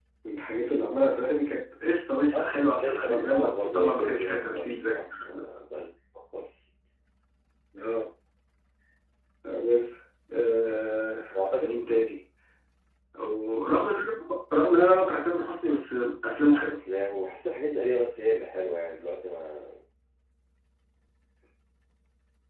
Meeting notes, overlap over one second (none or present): present